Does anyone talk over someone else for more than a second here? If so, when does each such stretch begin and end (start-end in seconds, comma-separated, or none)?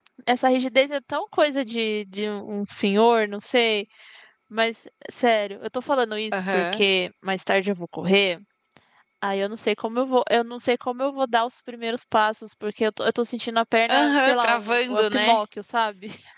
13.9-15.4